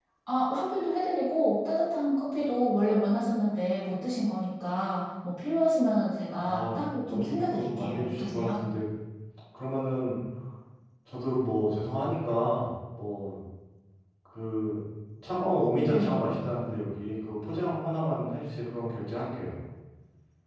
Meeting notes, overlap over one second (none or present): present